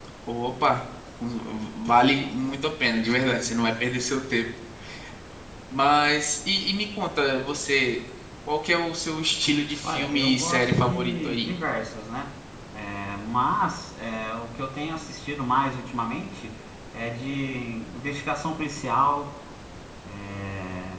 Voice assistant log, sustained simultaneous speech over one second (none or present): present